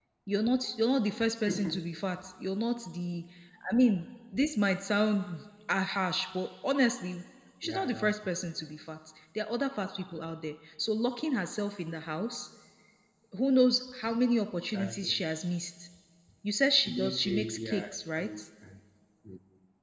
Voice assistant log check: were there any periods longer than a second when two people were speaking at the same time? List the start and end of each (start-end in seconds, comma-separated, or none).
16.9-18.3